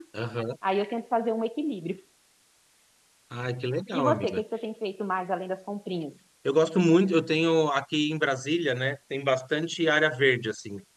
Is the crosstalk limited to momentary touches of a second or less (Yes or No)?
Yes